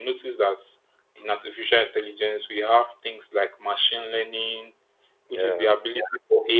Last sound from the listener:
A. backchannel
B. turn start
A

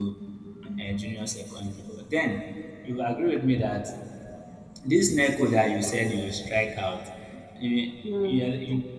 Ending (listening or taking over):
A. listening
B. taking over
A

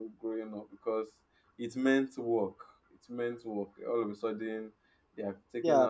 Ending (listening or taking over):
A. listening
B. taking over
B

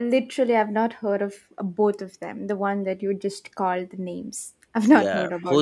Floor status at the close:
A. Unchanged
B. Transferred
B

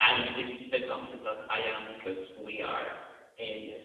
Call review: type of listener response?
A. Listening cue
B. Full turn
A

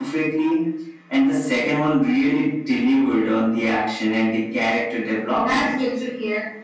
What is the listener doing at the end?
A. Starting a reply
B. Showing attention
A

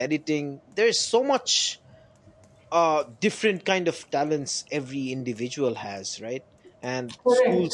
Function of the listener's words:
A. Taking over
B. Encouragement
B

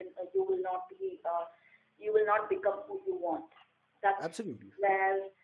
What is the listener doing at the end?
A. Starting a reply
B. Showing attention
B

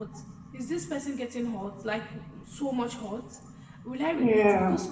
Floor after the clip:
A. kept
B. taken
A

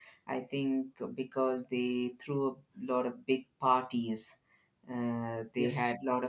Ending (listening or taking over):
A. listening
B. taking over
A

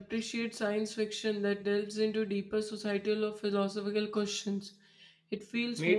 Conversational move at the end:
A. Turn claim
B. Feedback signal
A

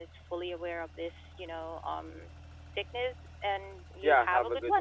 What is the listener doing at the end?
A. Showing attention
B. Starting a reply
B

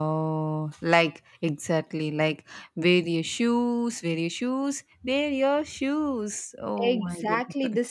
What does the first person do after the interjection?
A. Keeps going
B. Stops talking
B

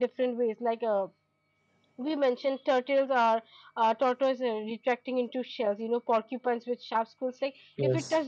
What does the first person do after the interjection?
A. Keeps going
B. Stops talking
A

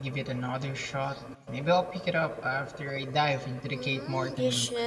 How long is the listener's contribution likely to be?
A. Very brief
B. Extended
B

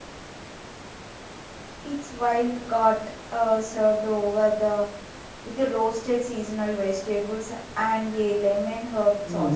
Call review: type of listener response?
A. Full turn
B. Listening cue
A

